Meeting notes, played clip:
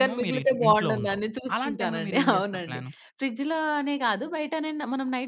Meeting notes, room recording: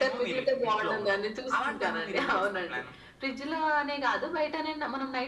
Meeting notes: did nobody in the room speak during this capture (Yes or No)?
Yes